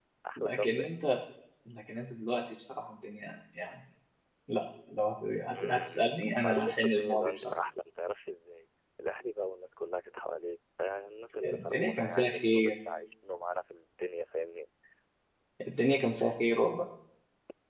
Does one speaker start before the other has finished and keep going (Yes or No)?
Yes